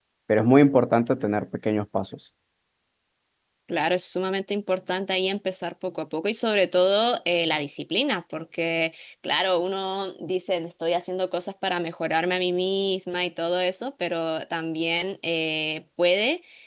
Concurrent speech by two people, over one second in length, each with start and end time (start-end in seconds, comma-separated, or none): none